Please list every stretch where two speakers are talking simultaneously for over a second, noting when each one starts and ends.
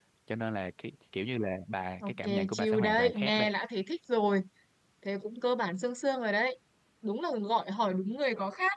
2.0-3.5

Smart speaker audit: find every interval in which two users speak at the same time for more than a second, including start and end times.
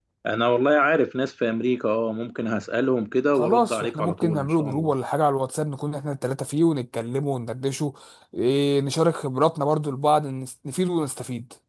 3.4-4.9

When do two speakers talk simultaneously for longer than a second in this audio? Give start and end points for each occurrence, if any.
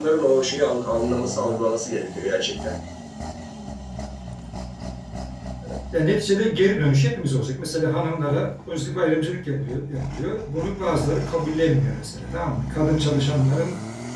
none

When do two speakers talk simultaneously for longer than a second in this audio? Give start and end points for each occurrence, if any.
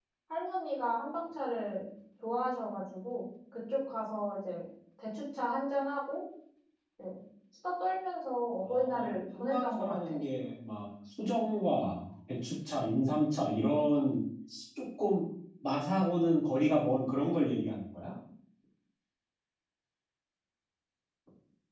8.7-10.2

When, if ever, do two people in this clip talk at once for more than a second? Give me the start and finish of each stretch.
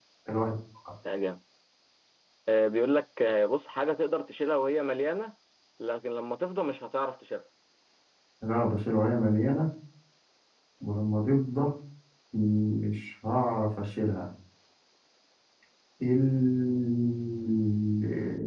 none

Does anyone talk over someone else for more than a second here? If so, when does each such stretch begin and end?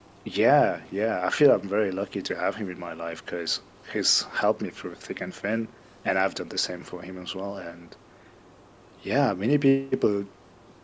none

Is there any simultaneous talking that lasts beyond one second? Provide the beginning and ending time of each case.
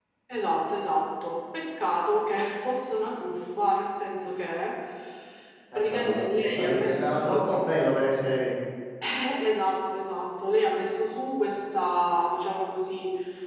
5.8-7.6

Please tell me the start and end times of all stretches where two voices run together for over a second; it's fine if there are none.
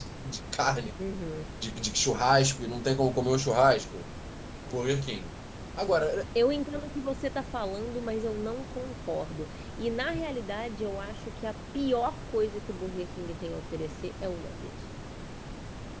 none

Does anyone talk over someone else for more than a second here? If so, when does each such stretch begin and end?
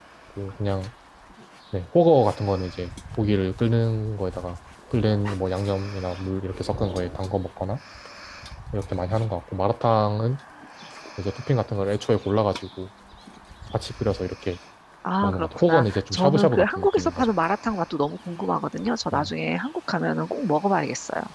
15.2-17.3

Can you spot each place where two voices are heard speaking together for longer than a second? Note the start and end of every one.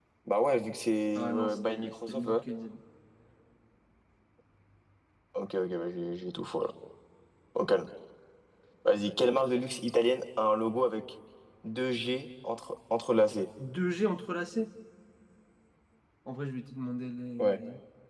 1.1-2.4

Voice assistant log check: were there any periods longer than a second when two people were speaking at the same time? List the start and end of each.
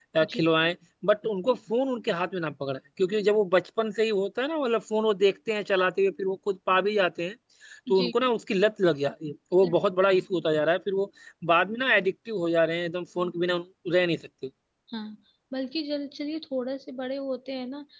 none

